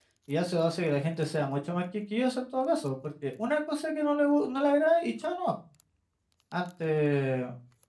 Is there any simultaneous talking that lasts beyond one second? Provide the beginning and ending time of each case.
none

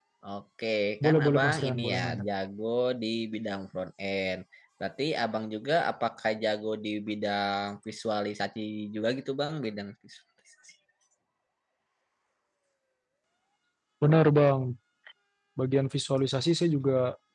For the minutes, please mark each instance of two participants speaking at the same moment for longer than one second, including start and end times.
1.0-2.2

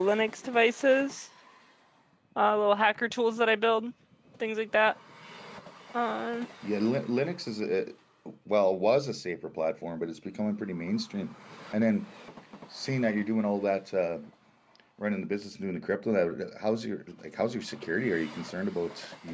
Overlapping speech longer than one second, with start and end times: none

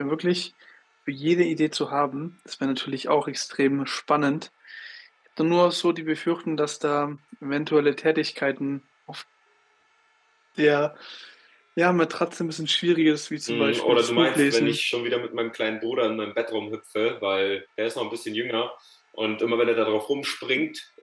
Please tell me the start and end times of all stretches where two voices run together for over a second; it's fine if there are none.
13.5-14.8

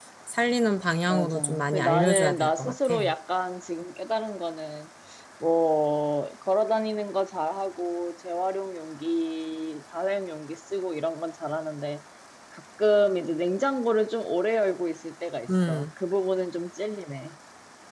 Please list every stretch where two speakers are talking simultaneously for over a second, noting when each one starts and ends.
1.1-2.9

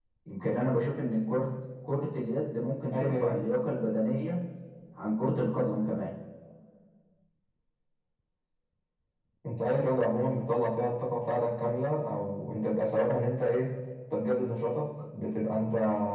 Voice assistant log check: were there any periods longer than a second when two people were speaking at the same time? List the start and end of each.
none

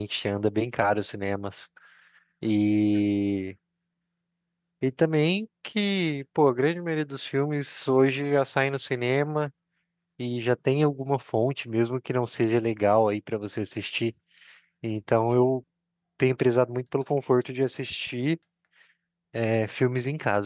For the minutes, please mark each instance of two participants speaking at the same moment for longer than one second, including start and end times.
none

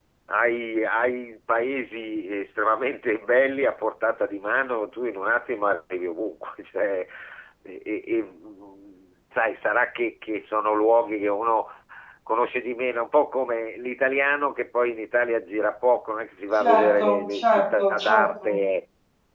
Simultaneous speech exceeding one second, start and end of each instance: 16.6-18.5

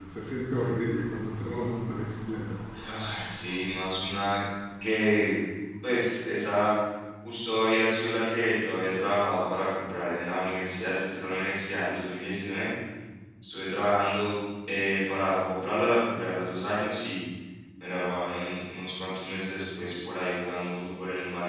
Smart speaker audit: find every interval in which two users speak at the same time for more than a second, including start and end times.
none

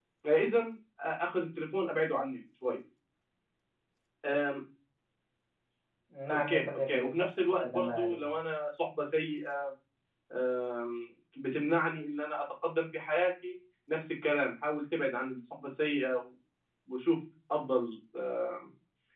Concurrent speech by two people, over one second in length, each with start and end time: 6.3-8.3

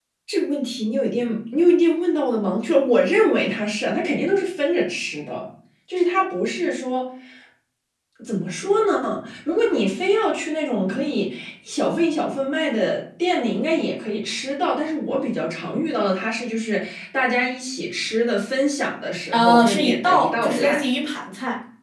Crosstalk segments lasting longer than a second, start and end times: 19.3-20.8

